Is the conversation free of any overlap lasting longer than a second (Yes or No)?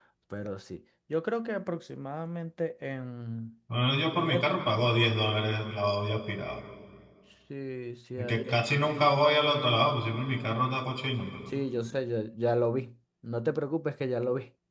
Yes